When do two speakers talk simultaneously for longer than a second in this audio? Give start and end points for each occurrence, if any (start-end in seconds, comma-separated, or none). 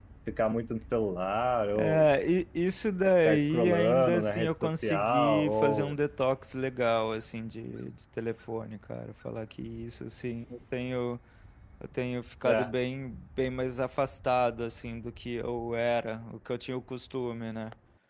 3.2-5.9